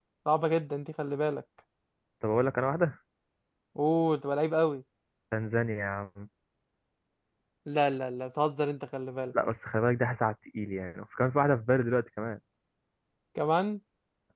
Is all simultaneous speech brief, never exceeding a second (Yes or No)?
Yes